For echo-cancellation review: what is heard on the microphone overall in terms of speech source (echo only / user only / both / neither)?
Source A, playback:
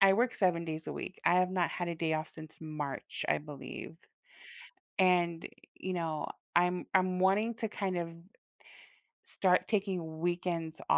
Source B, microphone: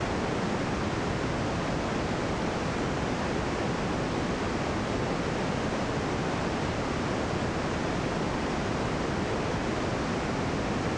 neither